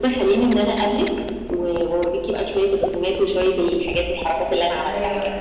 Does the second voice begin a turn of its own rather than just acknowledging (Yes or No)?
Yes